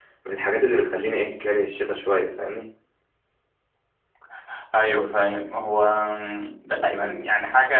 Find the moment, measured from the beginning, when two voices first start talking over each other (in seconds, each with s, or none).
none